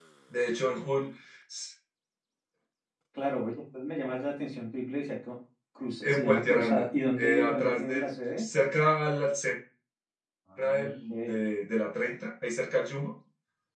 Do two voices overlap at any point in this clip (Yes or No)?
Yes